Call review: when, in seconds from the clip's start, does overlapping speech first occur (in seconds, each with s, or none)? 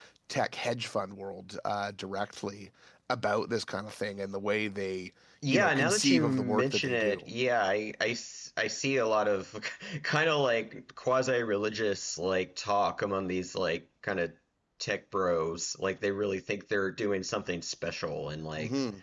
5.4 s